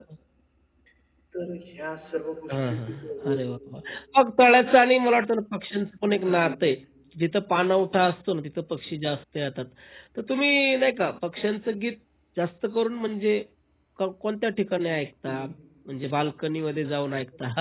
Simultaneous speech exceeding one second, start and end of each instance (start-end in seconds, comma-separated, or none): none